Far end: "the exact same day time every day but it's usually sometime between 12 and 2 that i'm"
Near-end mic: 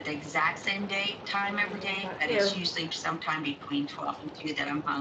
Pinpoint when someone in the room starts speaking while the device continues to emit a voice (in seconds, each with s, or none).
1.4 s